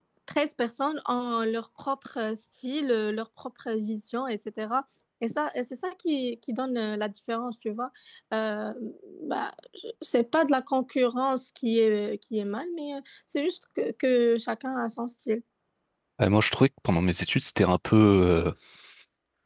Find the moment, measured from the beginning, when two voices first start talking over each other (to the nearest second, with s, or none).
none